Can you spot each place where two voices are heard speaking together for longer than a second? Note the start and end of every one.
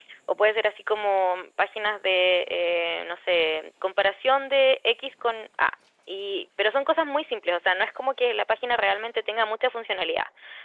none

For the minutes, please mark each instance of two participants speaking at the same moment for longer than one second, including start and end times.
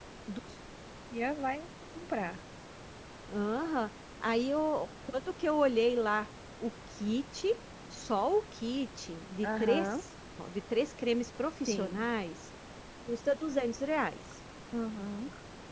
none

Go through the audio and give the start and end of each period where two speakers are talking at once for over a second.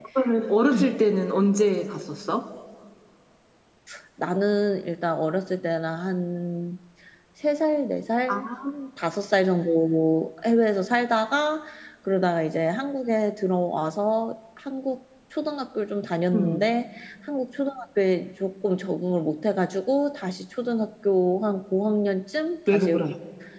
none

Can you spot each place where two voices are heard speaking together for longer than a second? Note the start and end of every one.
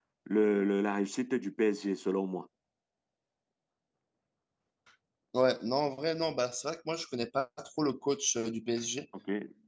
none

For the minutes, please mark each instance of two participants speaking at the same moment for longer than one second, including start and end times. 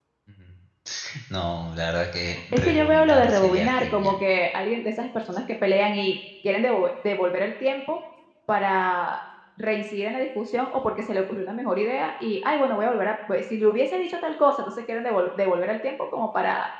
2.5-4.2

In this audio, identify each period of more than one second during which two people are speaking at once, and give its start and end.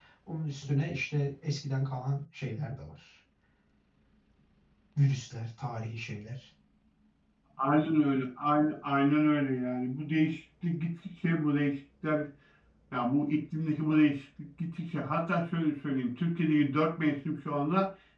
none

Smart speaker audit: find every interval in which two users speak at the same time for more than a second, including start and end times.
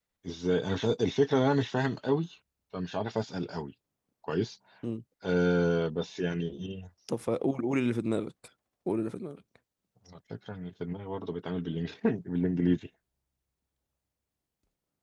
none

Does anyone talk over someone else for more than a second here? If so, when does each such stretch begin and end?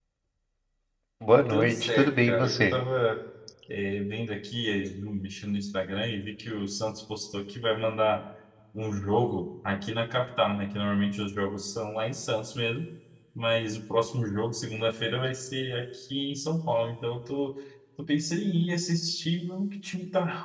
1.5-2.8

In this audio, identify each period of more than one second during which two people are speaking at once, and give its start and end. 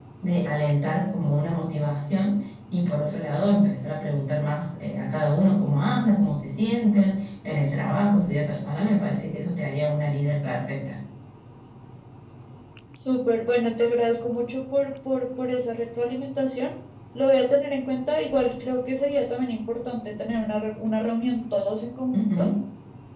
none

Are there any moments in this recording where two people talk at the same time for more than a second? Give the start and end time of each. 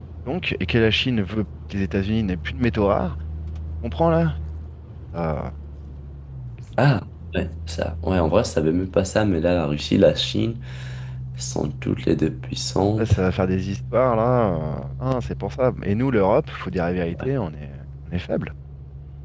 none

